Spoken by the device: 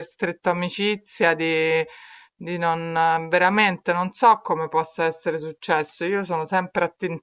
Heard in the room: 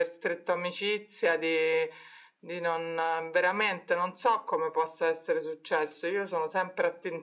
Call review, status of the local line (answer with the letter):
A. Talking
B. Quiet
B